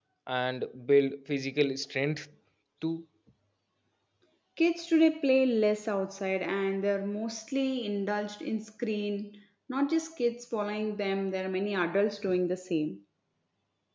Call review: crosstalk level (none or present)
none